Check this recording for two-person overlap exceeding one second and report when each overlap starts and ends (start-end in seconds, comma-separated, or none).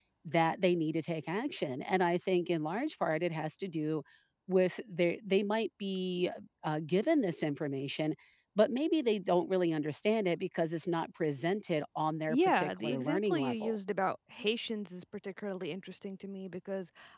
12.3-13.8